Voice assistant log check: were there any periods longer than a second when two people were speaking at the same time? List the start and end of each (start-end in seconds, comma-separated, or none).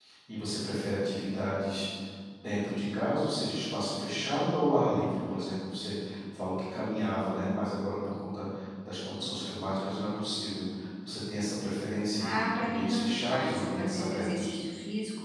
12.2-14.6